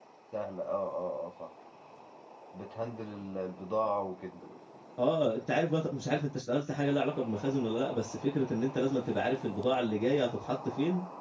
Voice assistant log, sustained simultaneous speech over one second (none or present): none